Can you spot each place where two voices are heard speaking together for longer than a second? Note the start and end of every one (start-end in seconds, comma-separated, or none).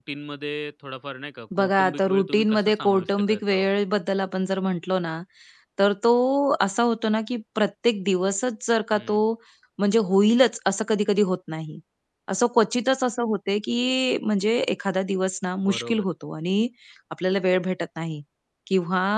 1.6-3.7